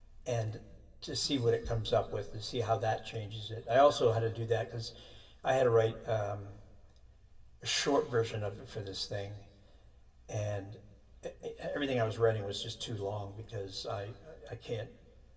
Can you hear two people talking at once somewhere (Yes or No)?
No